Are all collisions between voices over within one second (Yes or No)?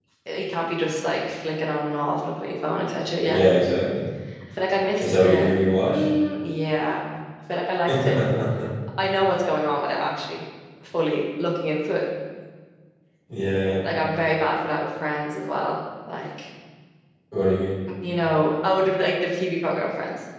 Yes